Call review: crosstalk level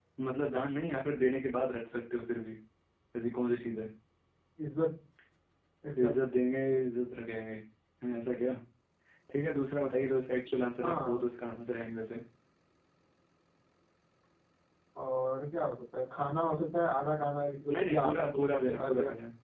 present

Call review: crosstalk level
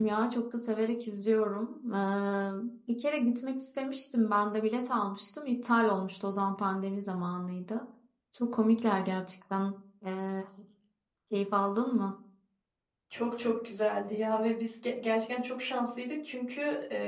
none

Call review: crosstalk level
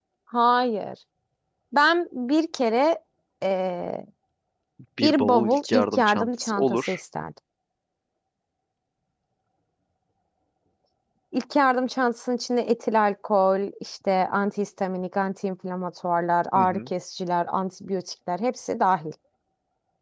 present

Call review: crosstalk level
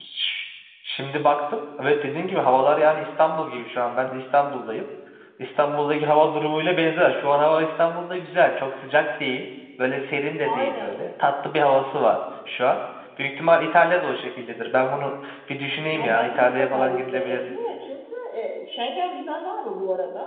present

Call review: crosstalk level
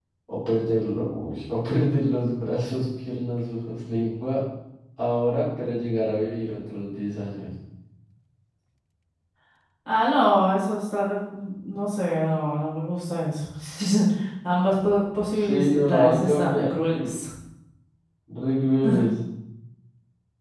present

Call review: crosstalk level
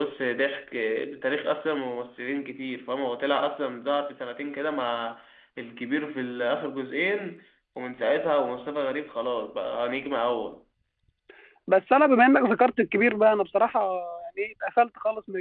none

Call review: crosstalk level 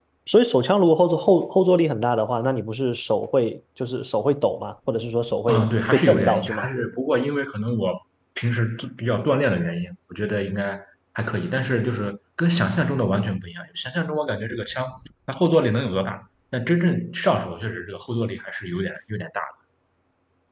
present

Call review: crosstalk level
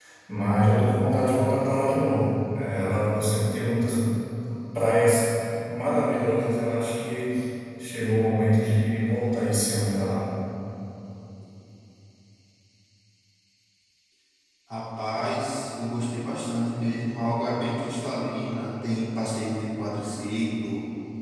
none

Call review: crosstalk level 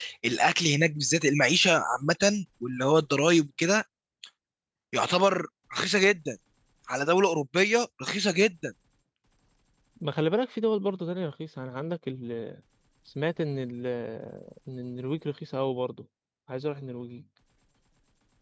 none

